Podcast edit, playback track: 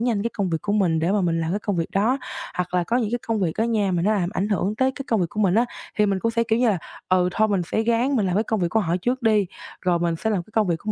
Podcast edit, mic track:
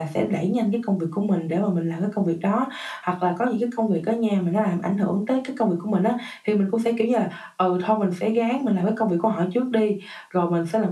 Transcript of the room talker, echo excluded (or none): none